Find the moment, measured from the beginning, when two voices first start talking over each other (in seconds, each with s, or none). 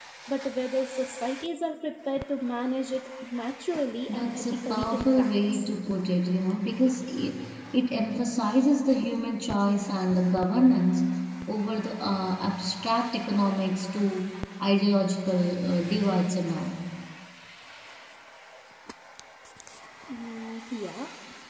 4.1 s